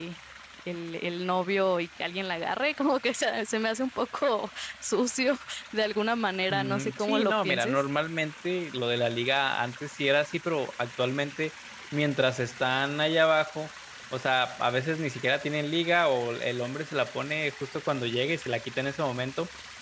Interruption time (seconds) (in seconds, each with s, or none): 6.5 s